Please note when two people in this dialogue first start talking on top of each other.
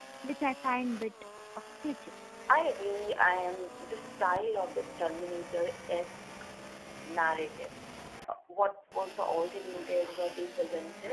none

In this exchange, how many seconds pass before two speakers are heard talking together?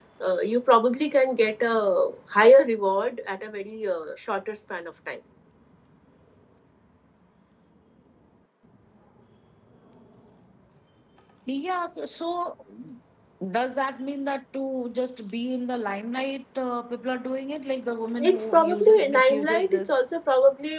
18.2 s

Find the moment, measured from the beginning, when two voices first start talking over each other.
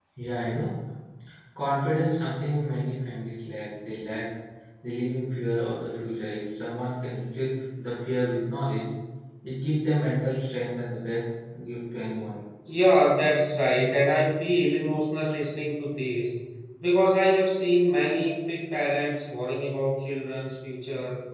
none

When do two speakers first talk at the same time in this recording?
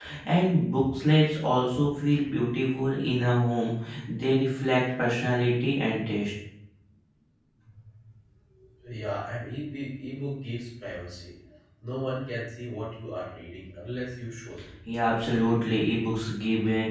none

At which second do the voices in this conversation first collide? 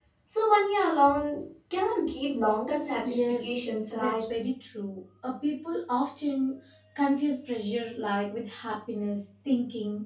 3.0 s

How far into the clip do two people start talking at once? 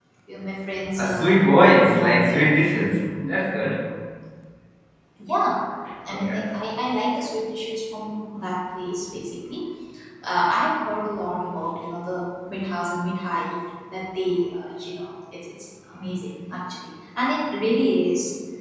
1.0 s

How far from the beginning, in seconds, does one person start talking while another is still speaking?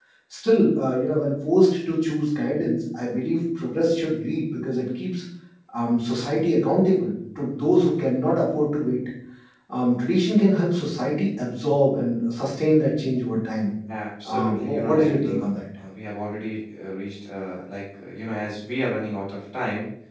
14.3 s

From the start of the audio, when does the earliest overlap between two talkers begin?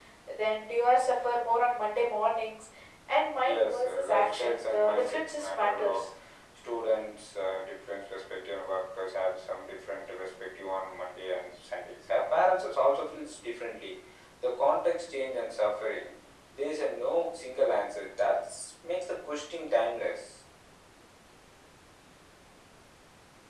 3.4 s

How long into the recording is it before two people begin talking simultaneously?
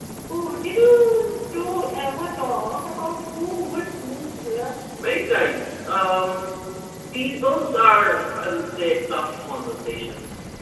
none

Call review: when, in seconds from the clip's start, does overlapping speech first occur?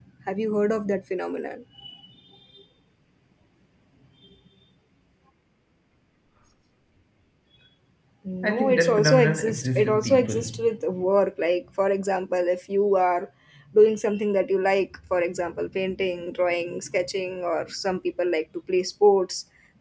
8.4 s

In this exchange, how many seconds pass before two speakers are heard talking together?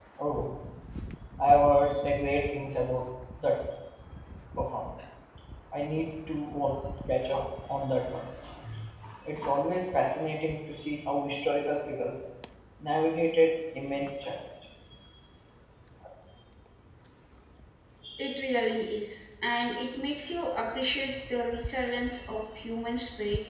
none

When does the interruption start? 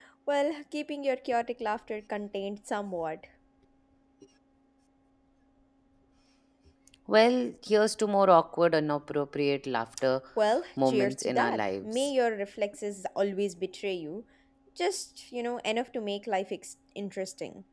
10.8 s

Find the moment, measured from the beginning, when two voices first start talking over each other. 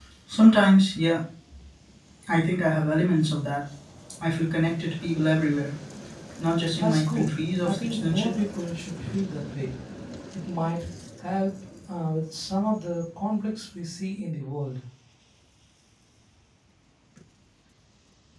6.8 s

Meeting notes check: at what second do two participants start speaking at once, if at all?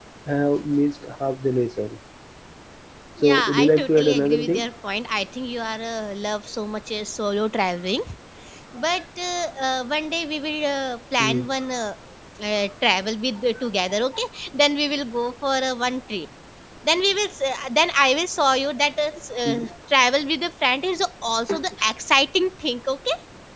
3.2 s

